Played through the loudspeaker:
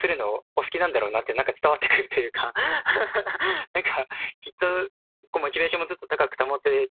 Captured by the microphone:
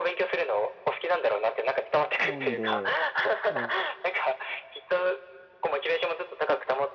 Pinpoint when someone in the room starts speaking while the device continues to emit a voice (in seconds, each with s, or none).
2.2 s